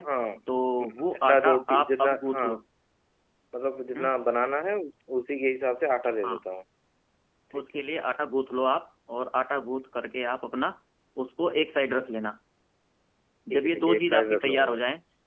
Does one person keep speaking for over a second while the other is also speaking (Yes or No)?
Yes